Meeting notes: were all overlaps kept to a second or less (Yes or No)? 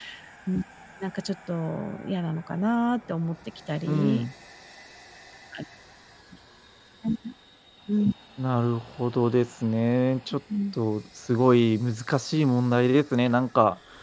Yes